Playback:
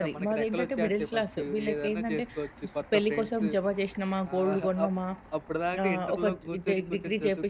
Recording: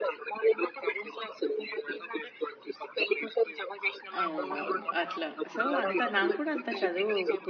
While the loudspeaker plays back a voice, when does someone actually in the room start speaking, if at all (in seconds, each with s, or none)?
4.2 s